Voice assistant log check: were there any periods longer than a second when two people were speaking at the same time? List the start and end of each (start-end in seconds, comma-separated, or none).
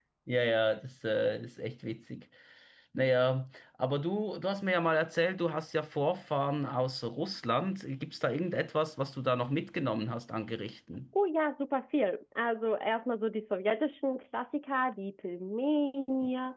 none